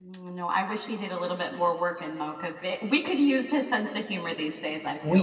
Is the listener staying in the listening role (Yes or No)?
No